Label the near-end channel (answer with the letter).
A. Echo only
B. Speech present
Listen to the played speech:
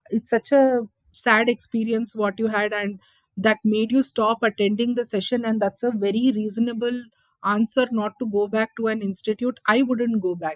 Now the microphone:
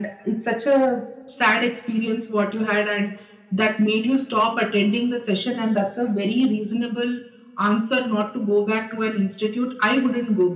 A